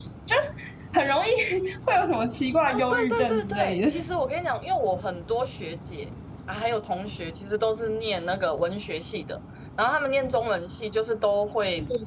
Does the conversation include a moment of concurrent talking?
Yes, from 2.6 s

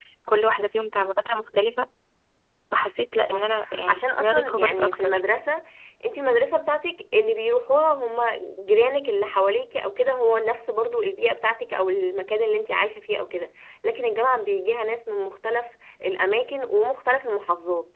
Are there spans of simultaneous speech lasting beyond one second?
Yes, from 3.3 s

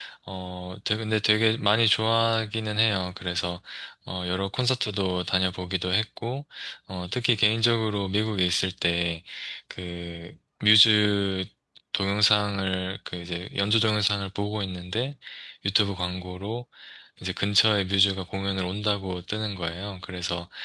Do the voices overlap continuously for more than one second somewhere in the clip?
No

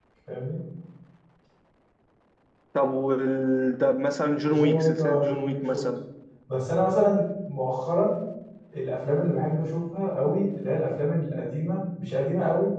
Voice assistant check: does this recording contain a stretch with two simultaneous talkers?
Yes, from 4.4 s

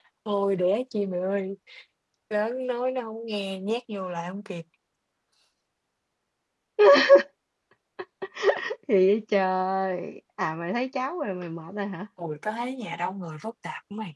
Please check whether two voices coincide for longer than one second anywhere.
No

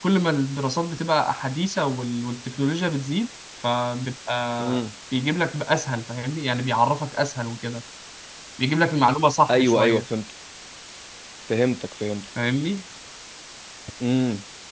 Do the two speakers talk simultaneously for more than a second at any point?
No

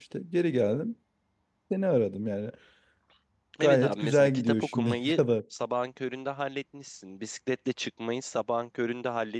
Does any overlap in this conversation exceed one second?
Yes, from 3.6 s

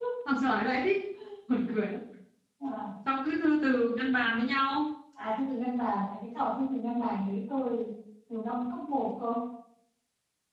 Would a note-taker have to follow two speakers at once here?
No

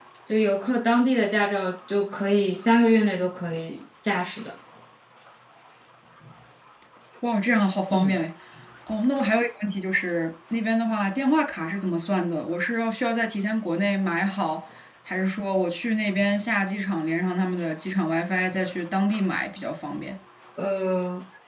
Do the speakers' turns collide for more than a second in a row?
No

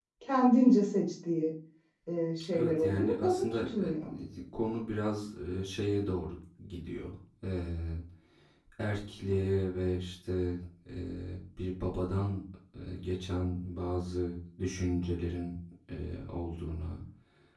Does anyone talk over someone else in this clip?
Yes, from 2.6 s

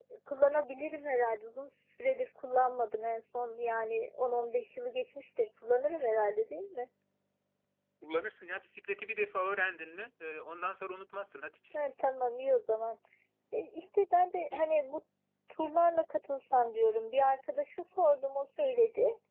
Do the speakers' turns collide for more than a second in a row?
No

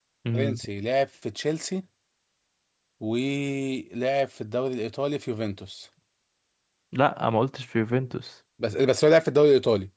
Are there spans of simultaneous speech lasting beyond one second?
No

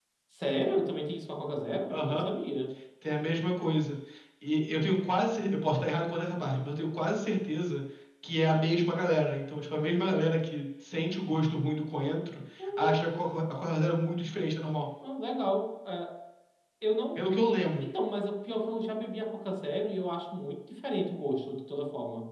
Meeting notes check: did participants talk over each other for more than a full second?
No

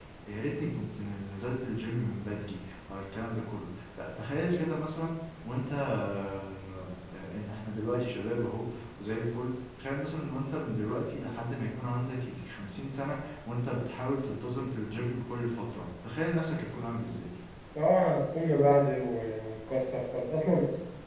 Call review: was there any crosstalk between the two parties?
No

